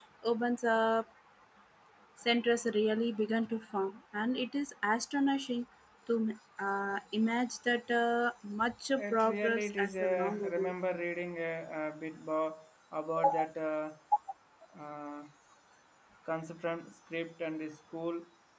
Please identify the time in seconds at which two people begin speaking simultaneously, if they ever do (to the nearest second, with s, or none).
9 s